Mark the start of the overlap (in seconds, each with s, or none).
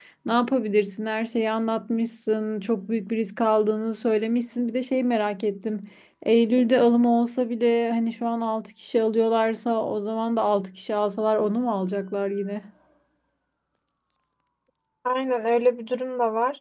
none